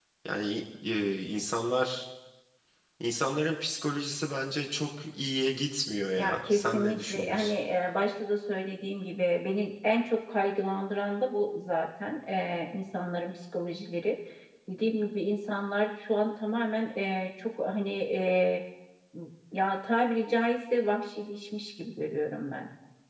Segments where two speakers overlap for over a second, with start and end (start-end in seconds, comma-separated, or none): 6.2-7.5